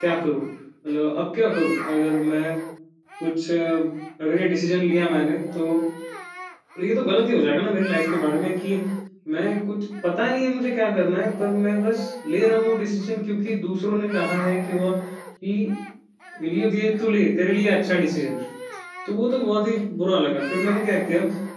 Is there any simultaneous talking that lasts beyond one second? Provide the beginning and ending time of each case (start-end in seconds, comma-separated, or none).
none